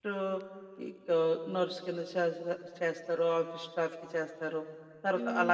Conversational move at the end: listening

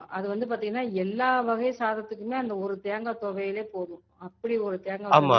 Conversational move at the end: taking over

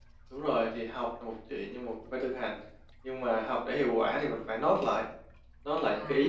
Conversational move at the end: listening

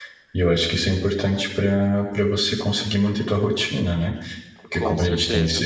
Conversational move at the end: listening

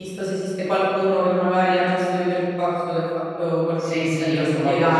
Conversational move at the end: taking over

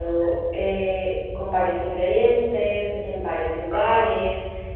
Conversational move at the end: listening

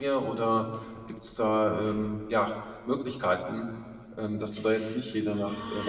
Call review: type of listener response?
taking over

